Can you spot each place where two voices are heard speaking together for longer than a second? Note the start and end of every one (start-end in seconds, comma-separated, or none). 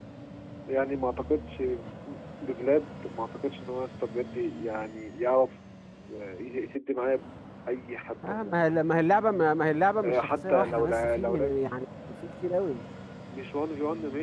10.0-11.6